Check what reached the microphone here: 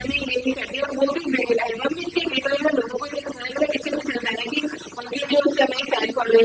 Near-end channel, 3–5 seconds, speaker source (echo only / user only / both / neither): echo only